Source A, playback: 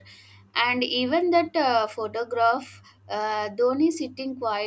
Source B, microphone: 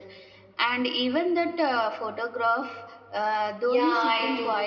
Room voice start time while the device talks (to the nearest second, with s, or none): 4 s